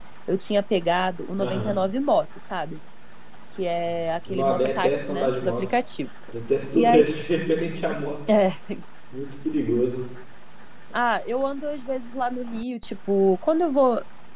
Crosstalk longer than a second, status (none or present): present